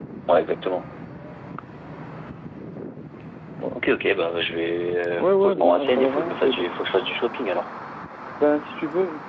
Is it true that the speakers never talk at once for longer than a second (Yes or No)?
No